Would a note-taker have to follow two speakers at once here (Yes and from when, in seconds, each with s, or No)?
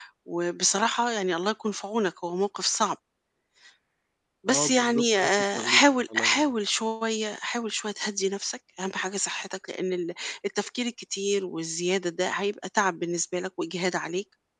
Yes, from 4.5 s